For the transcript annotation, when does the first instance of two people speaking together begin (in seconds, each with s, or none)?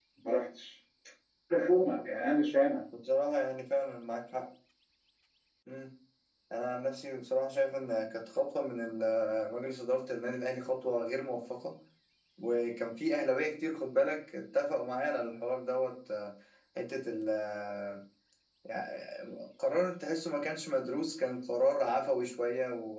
none